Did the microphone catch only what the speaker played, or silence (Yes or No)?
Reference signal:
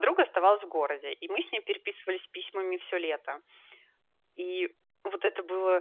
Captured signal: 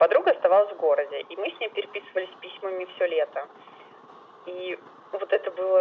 Yes